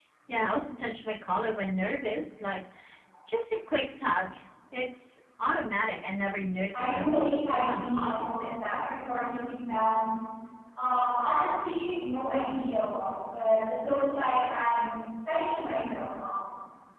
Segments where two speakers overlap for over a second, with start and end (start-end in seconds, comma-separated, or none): 6.7-8.5